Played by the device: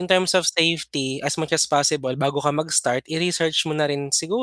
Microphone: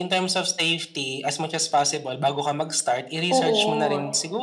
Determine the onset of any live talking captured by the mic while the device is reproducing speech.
3 s

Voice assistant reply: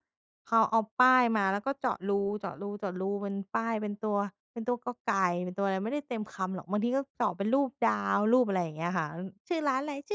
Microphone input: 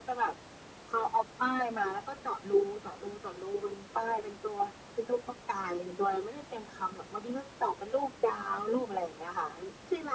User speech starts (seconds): none

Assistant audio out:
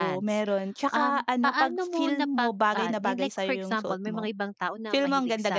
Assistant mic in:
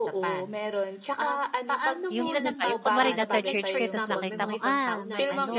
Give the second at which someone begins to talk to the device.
2 s

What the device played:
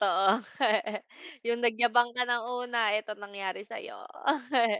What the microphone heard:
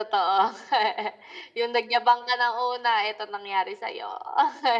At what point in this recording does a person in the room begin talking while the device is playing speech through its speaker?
none

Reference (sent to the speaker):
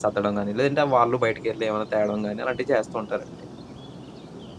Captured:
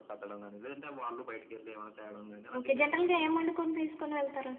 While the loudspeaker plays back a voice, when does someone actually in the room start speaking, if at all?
3 s

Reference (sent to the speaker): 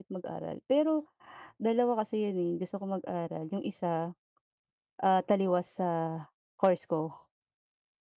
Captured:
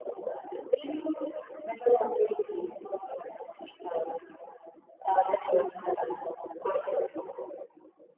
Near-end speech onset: none

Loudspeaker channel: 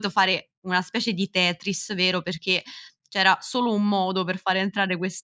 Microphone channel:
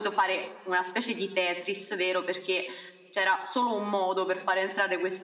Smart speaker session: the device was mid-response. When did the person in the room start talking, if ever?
none

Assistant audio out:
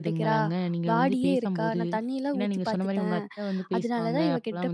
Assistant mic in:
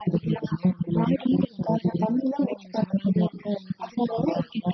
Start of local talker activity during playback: none

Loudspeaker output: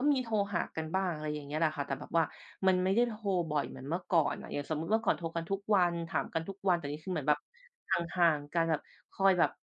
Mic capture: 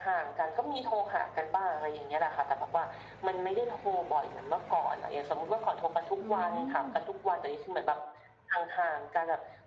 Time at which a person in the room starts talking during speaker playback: 6 s

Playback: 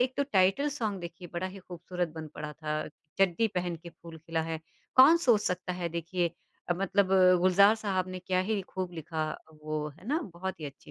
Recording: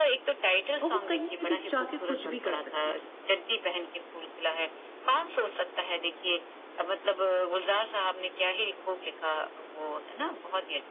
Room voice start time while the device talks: 1 s

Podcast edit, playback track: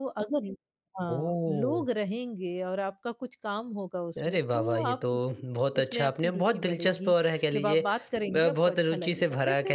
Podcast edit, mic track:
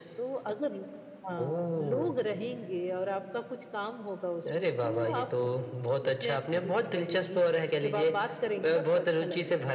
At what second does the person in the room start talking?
none

